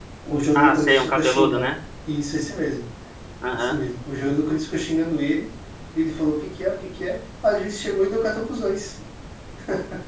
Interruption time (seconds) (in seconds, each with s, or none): 0.5 s